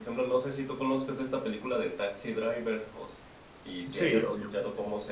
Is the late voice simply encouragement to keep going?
Yes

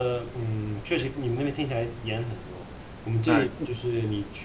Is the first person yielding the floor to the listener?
No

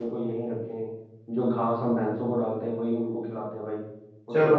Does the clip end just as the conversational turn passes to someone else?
Yes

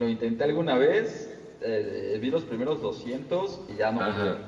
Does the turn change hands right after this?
Yes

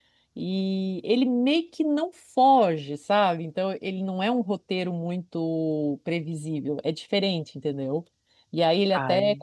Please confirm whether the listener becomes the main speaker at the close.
No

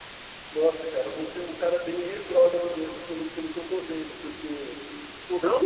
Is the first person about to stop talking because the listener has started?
Yes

